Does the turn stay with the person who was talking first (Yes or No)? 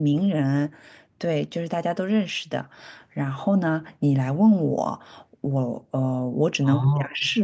Yes